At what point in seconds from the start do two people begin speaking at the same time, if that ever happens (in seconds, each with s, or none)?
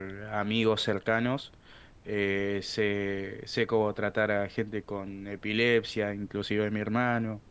none